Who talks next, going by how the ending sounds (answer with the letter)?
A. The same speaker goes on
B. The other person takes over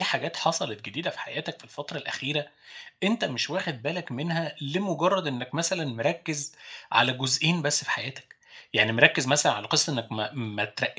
A